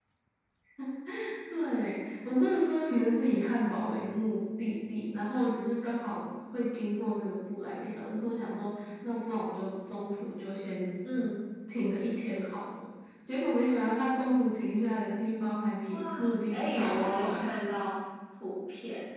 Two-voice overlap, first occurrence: 15.9 s

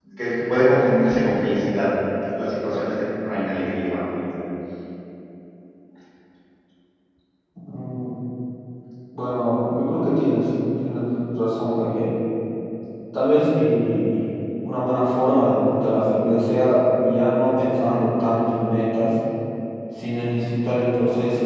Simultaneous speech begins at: none

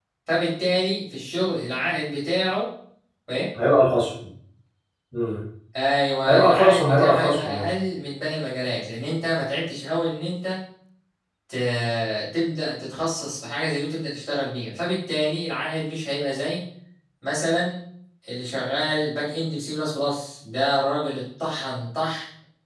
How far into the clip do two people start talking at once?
6.2 s

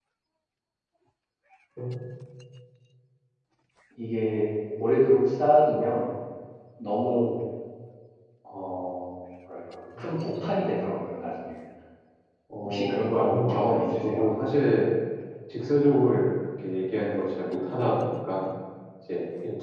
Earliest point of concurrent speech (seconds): 12.6 s

